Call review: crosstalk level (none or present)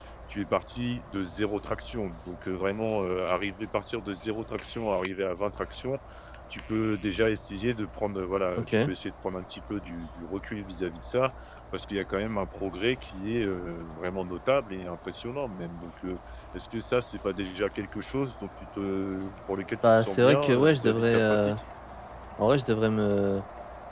present